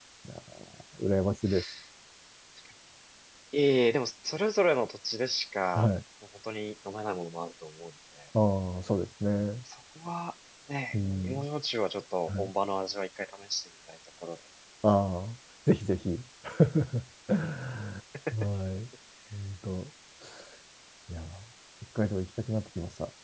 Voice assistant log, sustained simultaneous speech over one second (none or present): none